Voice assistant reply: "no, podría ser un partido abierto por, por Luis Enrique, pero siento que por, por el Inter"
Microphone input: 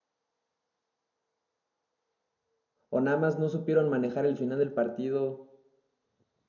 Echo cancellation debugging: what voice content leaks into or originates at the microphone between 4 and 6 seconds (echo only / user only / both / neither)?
user only